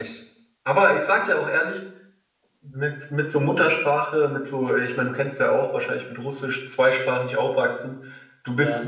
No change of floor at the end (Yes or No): Yes